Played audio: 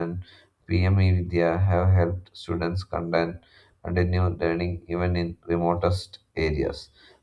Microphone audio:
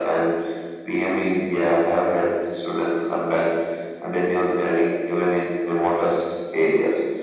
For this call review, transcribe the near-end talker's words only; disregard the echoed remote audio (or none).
none